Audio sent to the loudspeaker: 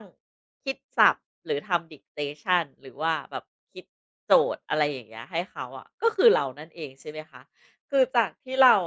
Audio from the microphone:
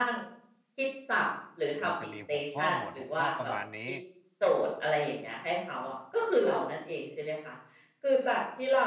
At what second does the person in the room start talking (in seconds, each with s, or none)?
1.8 s